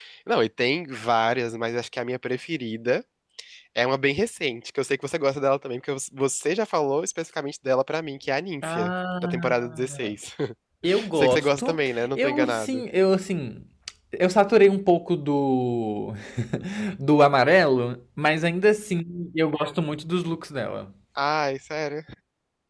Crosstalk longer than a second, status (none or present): present